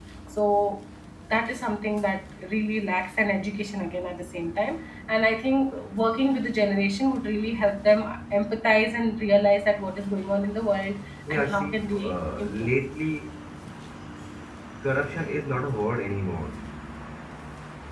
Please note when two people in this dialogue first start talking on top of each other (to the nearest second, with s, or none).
11 s